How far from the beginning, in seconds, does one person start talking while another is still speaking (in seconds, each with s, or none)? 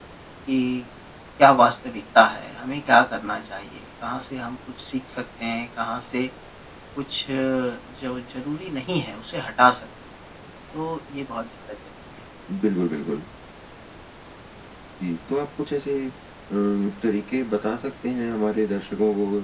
none